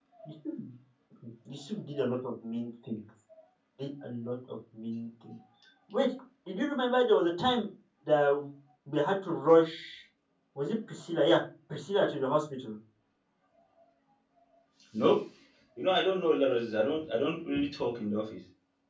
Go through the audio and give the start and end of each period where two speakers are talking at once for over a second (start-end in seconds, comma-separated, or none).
none